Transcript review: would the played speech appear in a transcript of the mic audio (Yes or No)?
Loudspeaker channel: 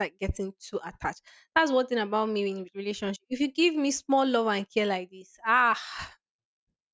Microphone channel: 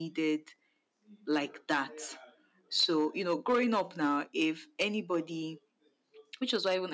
No